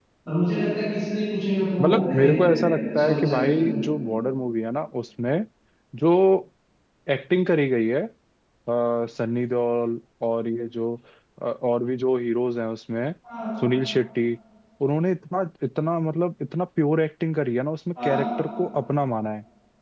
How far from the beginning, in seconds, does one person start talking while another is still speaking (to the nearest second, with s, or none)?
2 s